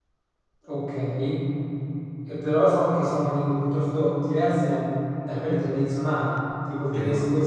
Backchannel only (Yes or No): Yes